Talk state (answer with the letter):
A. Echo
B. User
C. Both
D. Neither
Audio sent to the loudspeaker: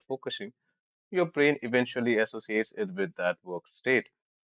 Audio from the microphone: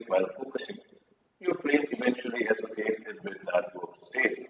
A